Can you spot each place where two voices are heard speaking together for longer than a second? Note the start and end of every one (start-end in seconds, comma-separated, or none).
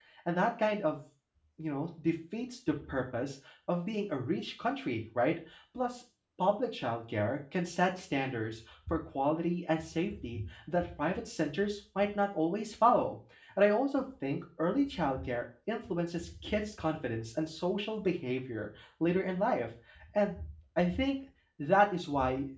none